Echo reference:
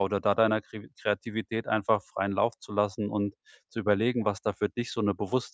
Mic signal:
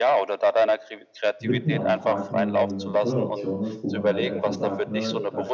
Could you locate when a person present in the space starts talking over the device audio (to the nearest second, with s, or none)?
1 s